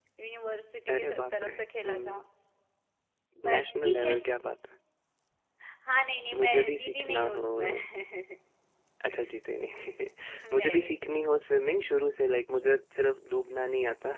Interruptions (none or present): present